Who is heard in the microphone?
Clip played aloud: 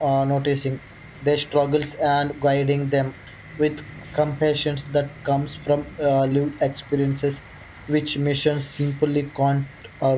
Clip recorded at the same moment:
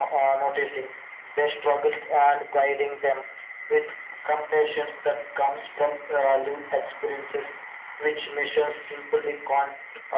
echo only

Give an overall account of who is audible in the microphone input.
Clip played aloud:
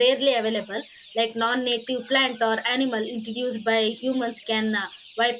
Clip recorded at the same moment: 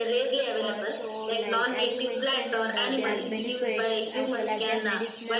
both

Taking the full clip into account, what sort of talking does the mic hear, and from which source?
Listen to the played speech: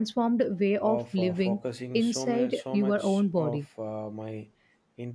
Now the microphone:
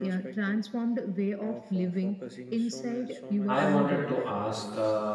both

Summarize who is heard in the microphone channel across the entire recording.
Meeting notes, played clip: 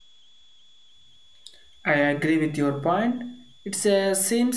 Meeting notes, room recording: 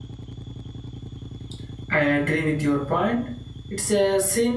echo only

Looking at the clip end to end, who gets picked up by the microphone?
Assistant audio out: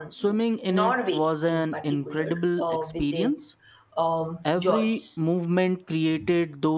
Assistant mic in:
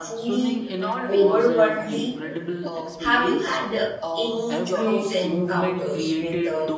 both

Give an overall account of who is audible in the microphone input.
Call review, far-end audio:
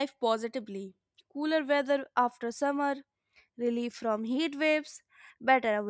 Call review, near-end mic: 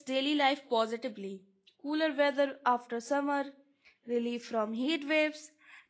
echo only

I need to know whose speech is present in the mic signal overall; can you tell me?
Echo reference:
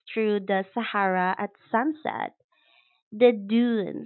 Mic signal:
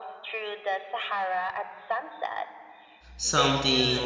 both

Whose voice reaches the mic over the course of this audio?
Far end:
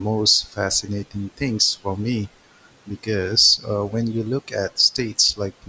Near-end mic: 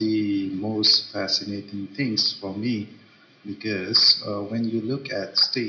echo only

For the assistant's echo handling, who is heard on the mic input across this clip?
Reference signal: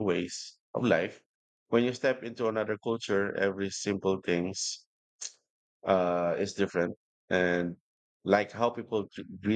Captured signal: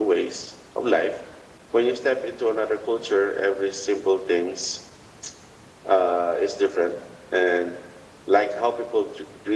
echo only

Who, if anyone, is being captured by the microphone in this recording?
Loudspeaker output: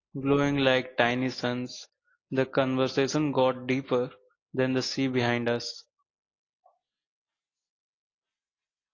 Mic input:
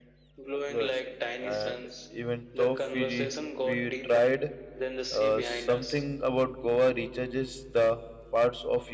both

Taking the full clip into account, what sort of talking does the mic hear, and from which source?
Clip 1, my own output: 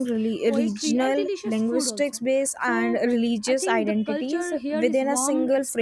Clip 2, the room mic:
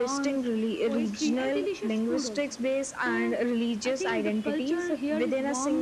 echo only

